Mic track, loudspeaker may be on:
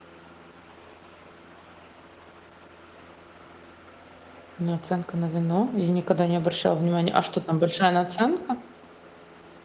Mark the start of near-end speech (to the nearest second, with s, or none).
5 s